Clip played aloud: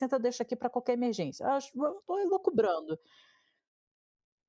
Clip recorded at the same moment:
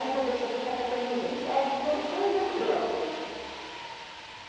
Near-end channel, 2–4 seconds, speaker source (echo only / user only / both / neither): echo only